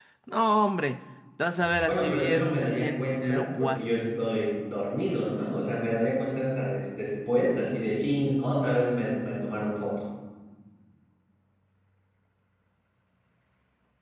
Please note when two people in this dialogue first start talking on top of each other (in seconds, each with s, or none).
1.8 s